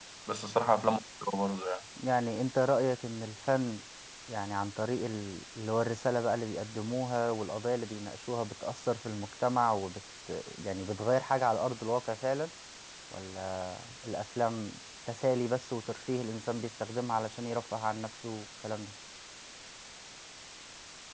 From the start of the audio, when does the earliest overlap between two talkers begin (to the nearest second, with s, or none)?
none